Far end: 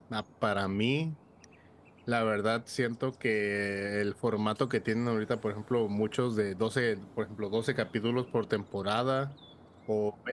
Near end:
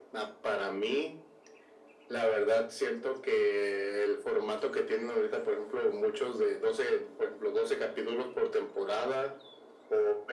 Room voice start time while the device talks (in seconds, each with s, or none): none